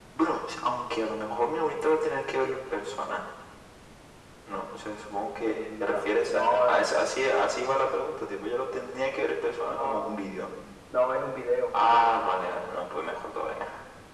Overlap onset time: 5.5 s

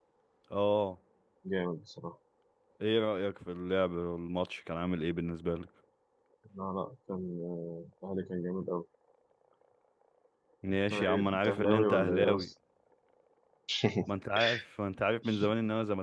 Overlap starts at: 10.9 s

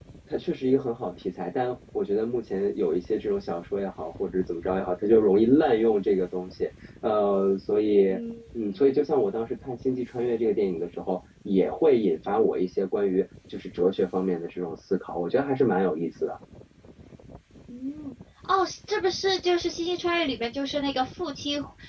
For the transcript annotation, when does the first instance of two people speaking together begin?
none

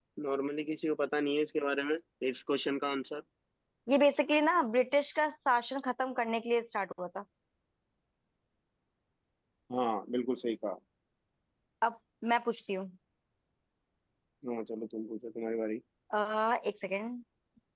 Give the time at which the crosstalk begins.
none

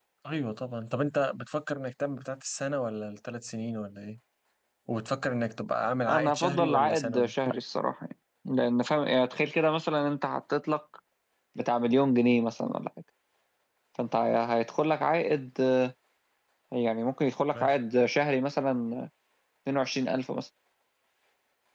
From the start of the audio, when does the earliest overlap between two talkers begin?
6.1 s

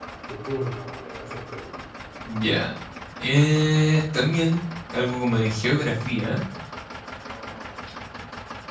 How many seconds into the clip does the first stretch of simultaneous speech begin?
none

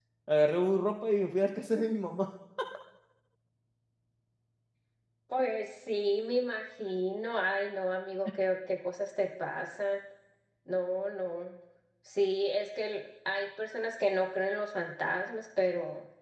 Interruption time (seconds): none

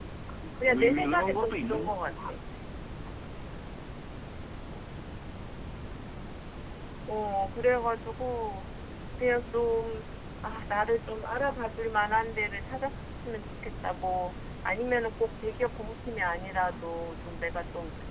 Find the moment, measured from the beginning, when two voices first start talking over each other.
0.6 s

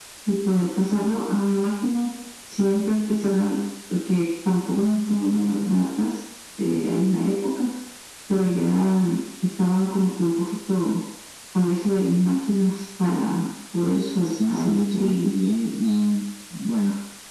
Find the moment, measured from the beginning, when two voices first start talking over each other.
14.0 s

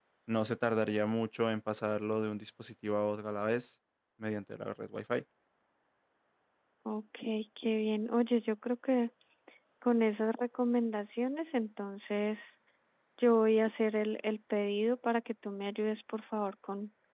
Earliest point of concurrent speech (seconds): none

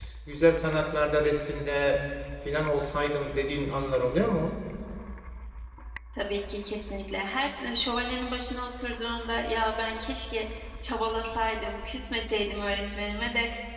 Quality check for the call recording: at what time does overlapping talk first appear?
none

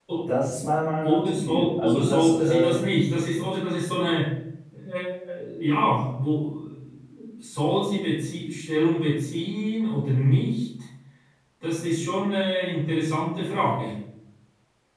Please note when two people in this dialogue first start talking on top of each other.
1.0 s

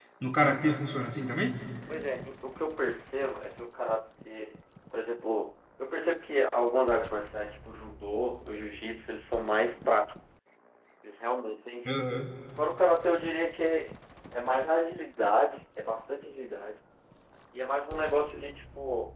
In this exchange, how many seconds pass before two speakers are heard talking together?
none

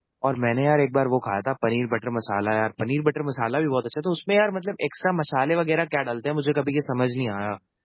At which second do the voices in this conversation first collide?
none

